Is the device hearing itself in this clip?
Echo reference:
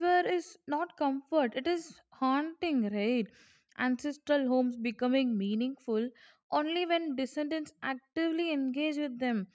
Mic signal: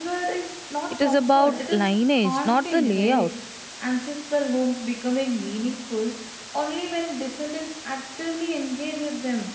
Yes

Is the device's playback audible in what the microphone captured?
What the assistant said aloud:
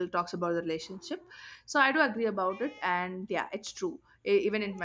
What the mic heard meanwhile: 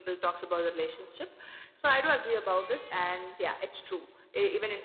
Yes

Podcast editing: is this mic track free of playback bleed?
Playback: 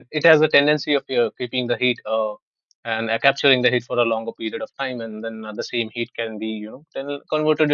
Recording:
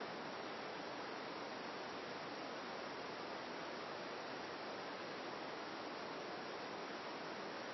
Yes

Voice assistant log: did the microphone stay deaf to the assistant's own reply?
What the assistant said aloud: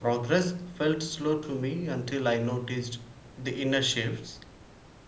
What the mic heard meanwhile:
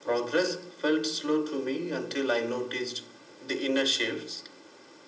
No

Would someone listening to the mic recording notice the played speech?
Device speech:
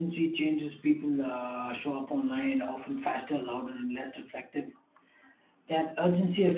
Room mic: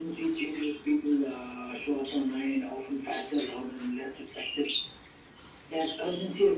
Yes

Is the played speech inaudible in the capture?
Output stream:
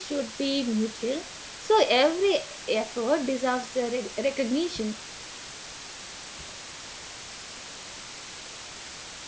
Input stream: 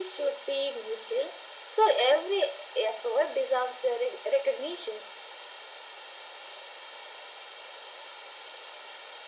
No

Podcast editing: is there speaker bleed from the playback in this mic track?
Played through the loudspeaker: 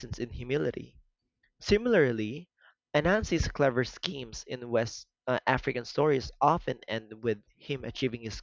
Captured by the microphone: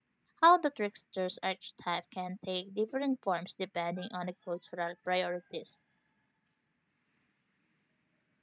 No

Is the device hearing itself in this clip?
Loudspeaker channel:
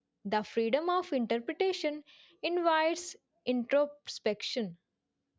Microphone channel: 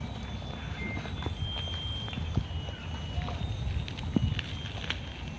No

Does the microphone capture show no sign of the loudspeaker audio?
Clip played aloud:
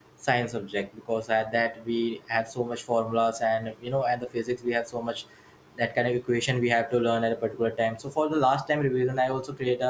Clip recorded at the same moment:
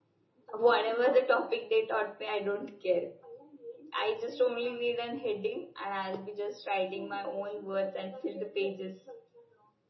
Yes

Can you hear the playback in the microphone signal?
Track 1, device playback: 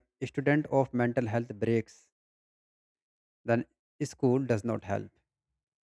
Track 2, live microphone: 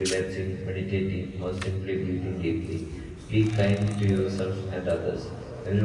No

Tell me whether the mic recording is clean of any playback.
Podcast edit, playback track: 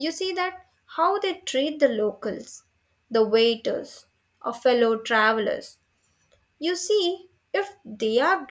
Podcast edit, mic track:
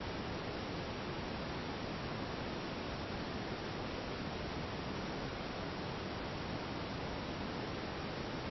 Yes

